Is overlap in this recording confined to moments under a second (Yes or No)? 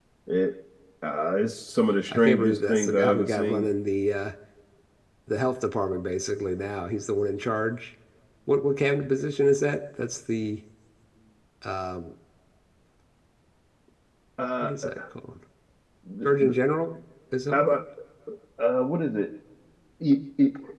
No